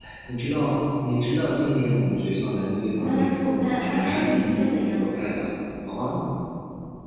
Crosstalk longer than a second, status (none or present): present